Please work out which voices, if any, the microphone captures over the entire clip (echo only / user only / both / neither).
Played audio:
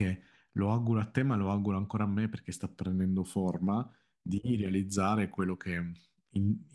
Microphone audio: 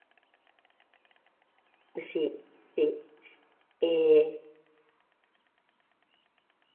user only